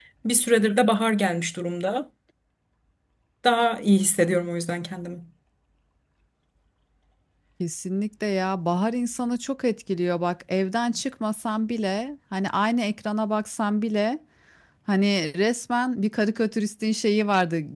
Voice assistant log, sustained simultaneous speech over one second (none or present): none